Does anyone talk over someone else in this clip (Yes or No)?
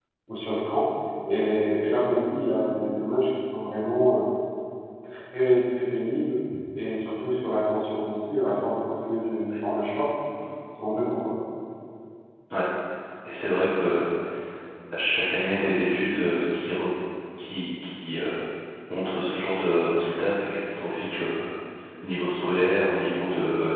No